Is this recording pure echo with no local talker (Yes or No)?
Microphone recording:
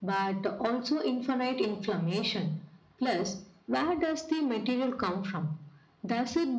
Yes